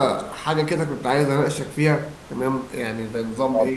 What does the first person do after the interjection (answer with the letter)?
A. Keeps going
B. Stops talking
A